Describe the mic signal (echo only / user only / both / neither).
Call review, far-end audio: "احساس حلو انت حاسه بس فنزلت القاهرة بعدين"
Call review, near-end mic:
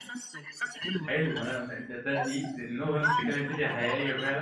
both